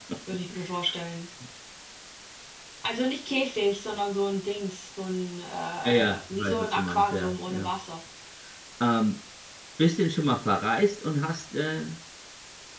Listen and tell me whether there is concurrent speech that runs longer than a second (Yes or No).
Yes